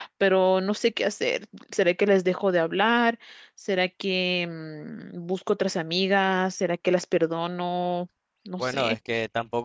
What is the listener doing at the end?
taking over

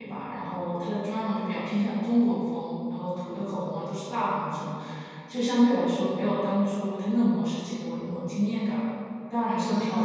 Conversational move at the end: taking over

